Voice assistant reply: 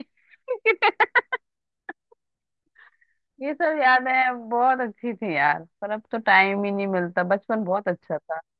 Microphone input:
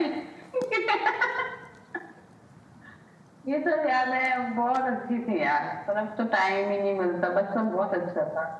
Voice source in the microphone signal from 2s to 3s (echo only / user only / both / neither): neither